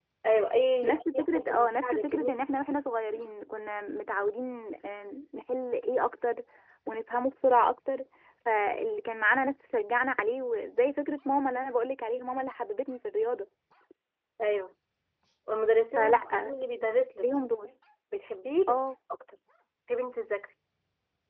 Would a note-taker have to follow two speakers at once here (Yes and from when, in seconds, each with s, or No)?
Yes, from 0.8 s